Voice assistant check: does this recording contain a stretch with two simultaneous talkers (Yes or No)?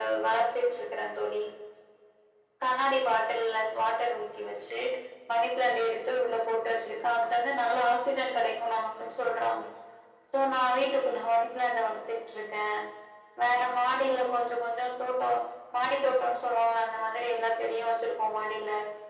No